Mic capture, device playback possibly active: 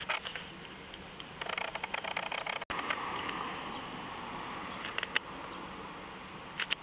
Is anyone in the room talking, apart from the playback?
No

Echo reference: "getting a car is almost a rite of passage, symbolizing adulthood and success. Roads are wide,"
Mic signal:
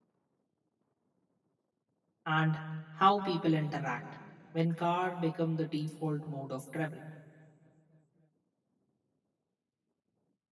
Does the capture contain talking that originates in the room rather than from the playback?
Yes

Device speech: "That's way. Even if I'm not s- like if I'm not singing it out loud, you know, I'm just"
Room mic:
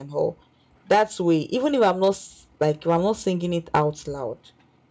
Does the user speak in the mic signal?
No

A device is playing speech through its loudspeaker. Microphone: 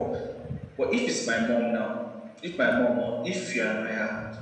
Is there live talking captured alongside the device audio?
No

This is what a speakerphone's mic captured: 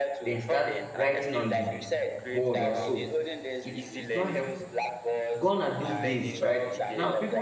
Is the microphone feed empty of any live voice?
No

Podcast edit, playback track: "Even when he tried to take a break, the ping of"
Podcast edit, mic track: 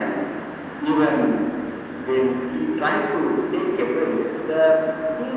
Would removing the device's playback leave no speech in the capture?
Yes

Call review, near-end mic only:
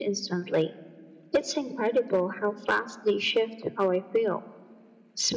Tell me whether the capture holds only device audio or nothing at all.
Yes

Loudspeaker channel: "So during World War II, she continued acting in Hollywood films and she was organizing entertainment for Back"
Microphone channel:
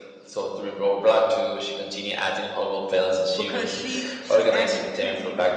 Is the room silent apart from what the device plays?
No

